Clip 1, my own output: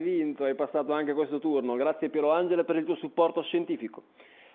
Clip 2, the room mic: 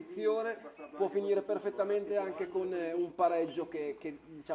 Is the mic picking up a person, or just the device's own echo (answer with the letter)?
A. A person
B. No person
A